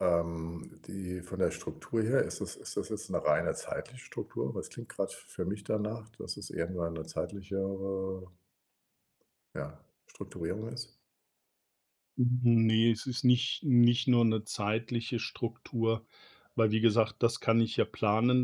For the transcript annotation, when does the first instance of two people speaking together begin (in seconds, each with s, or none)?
none